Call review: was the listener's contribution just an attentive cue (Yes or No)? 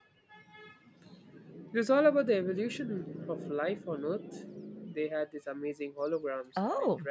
No